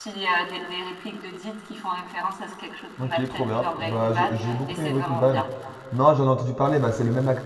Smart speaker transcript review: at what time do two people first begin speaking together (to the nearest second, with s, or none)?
3 s